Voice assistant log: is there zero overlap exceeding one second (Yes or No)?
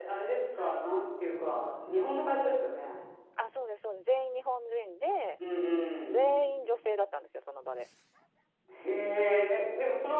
Yes